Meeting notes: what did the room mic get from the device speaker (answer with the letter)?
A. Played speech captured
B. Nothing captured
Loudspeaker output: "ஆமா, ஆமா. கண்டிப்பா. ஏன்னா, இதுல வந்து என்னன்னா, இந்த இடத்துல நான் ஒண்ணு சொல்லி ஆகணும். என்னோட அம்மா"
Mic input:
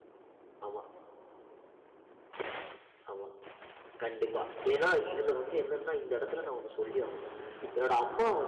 A